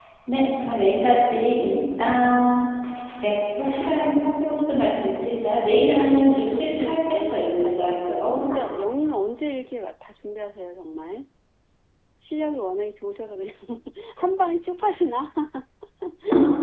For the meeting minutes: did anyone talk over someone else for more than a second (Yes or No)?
Yes